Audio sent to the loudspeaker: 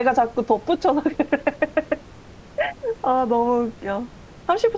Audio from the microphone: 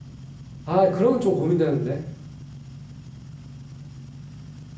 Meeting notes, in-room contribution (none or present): present